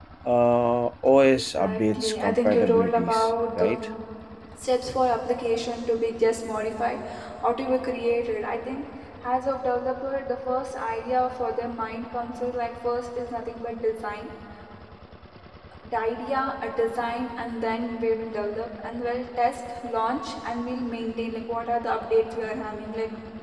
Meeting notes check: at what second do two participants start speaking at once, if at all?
1.3 s

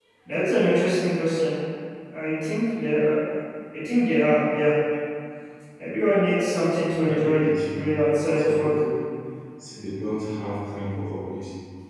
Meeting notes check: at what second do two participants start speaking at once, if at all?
7.1 s

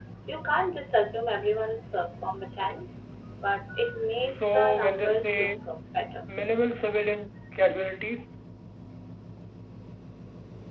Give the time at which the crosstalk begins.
4.3 s

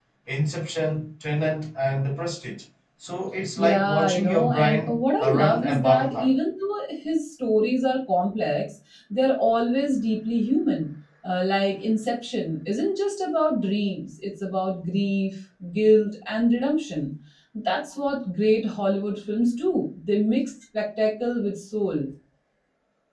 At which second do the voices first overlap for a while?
3.6 s

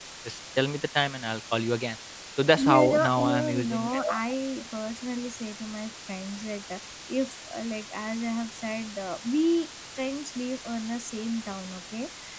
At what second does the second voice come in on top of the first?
2.6 s

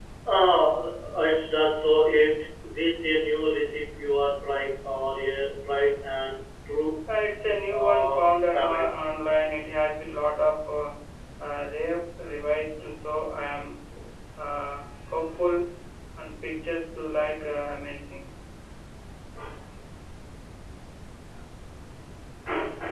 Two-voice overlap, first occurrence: 7.7 s

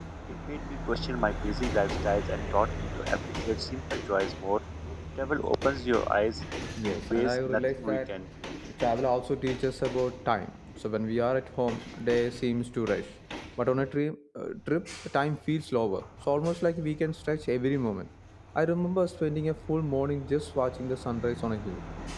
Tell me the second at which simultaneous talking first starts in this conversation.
6.9 s

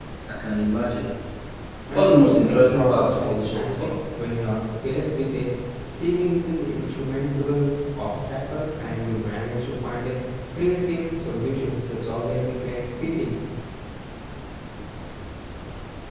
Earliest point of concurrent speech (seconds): 2.0 s

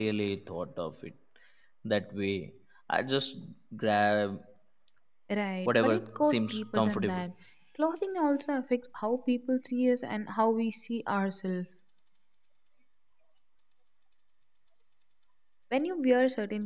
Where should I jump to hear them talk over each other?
5.7 s

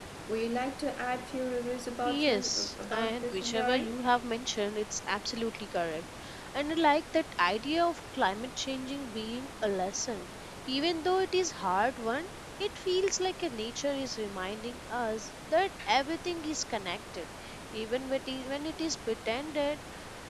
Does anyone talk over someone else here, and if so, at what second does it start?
2.0 s

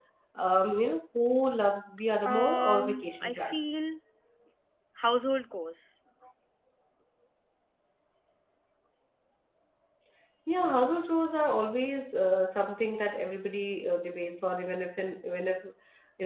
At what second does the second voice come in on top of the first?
2.2 s

